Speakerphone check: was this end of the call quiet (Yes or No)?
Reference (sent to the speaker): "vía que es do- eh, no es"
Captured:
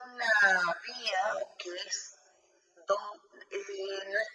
Yes